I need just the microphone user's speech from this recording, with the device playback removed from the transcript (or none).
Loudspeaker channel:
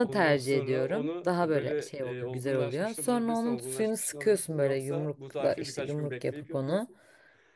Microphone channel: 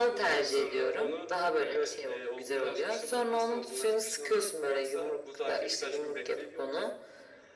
none